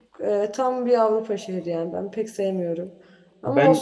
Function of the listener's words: listening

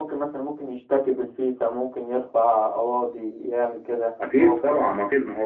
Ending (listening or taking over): taking over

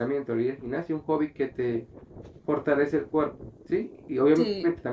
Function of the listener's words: listening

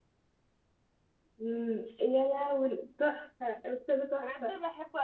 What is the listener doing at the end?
taking over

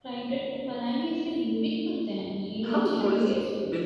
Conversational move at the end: taking over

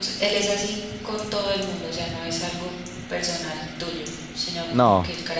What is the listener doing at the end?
listening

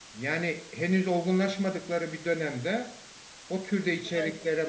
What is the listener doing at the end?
listening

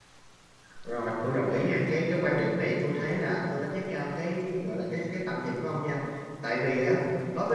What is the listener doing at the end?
listening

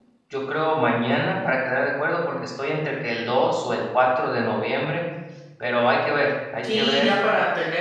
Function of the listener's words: taking over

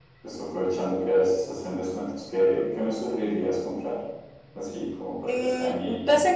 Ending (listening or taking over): taking over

